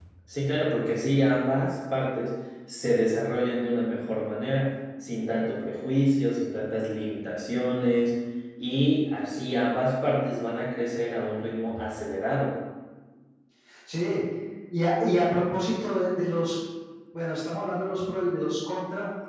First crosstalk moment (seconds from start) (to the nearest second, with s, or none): none